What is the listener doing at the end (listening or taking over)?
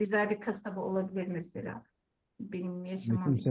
taking over